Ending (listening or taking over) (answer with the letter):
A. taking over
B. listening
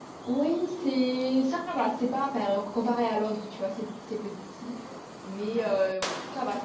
B